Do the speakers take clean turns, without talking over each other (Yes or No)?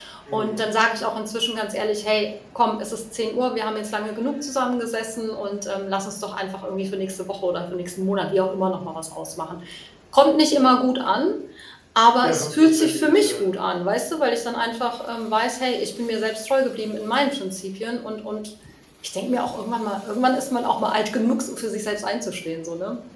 No